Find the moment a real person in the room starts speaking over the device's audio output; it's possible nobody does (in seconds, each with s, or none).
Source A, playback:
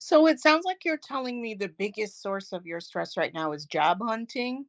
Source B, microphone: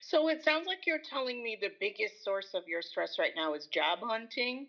none